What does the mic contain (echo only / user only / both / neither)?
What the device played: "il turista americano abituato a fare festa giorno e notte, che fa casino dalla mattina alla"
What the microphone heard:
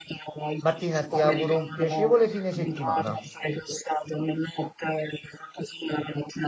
both